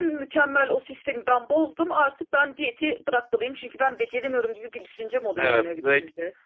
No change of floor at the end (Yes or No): No